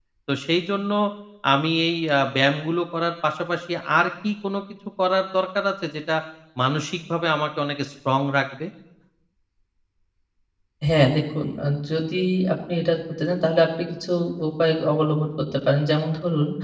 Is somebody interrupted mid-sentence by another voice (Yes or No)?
No